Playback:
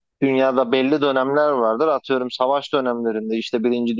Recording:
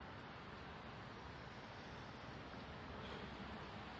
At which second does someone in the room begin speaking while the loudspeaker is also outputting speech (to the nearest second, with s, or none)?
none